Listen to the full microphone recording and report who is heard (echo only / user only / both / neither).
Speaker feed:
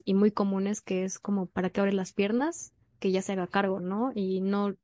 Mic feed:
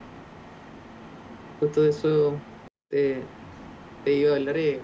user only